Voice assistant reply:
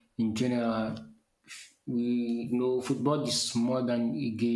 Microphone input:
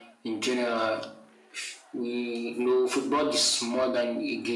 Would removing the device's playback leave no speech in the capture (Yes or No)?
Yes